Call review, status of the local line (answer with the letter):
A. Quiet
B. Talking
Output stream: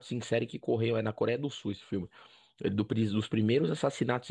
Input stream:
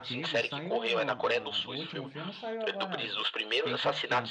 B